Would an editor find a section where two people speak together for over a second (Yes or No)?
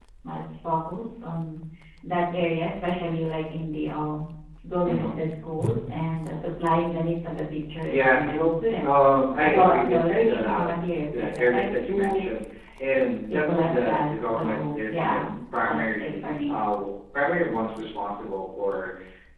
Yes